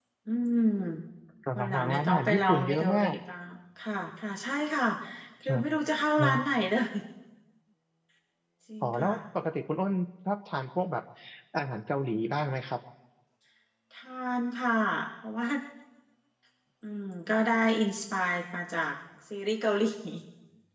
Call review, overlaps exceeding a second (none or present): present